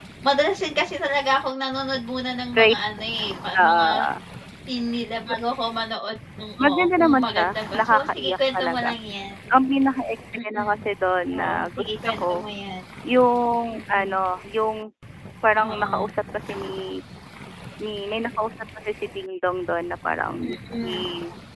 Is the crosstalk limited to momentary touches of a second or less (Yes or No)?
No